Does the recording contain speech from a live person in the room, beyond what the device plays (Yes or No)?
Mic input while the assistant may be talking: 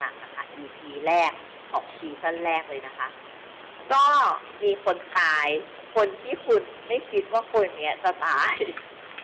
No